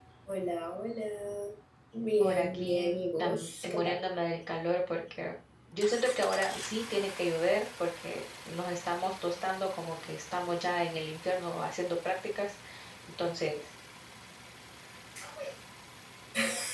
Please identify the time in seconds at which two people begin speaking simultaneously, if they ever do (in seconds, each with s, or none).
2.2 s